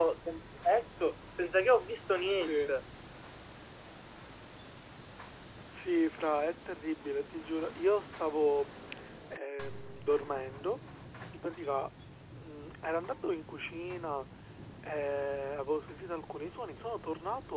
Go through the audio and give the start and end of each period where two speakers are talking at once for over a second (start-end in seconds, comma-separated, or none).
none